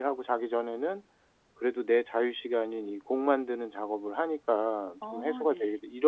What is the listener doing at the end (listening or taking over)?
listening